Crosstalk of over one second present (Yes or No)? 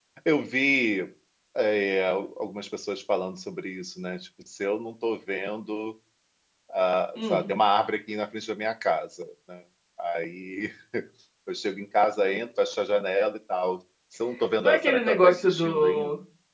Yes